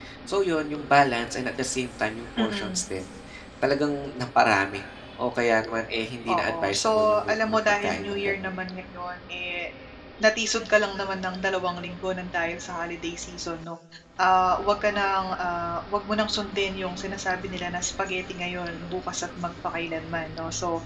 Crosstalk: present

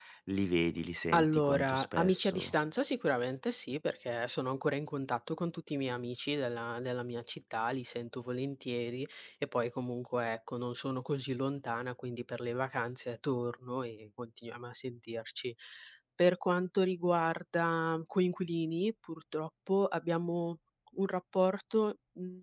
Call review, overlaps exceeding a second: present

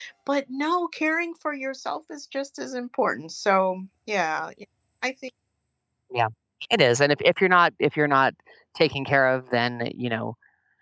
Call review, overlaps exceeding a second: none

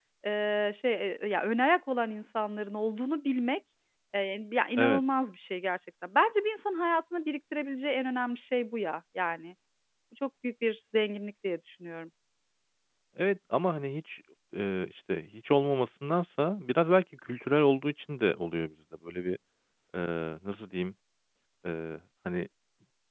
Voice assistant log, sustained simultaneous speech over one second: none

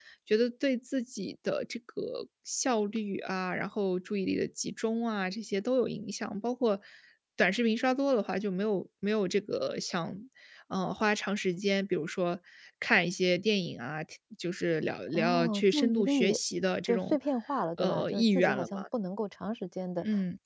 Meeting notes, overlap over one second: present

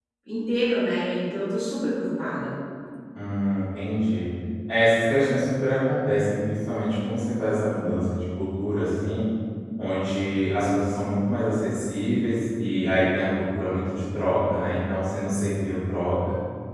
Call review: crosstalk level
none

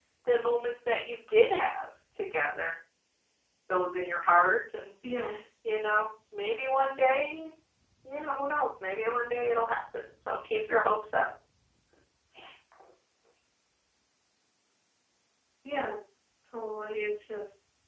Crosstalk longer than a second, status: none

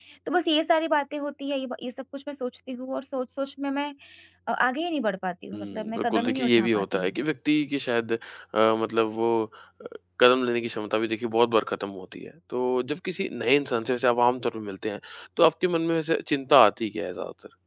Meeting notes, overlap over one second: present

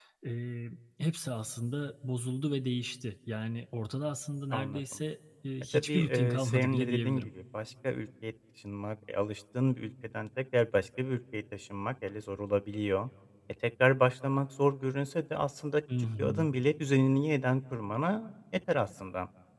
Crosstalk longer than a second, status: present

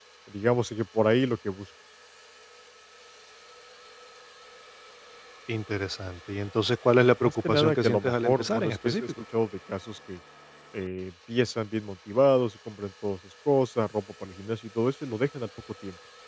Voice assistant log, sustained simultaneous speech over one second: present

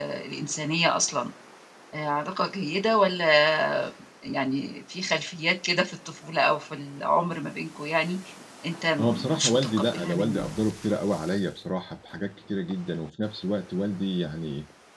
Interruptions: present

